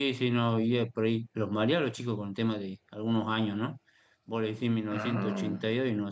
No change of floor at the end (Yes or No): Yes